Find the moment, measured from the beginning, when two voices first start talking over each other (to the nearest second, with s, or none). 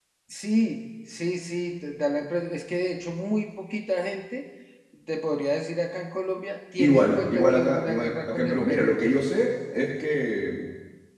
7 s